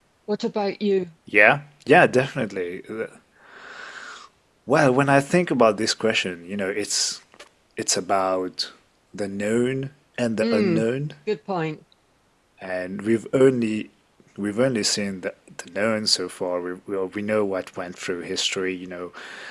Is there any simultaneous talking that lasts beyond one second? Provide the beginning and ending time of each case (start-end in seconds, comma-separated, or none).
none